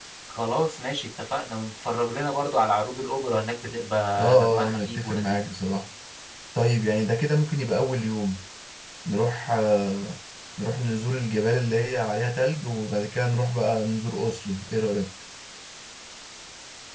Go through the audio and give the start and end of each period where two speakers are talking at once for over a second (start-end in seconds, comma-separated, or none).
4.2-5.5